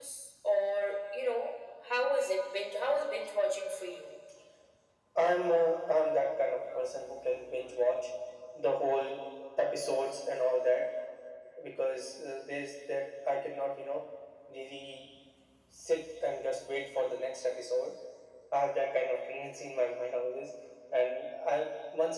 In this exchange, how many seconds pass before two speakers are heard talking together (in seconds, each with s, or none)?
none